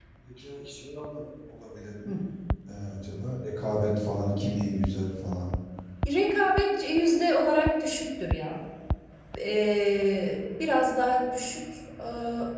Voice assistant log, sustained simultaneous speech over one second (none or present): none